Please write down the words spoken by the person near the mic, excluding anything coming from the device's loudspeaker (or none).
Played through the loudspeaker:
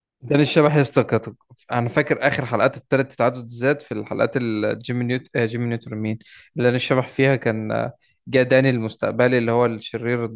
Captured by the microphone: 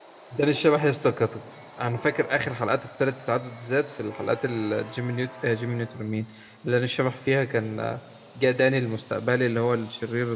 none